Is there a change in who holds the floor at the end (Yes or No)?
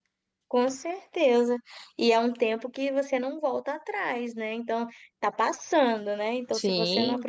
No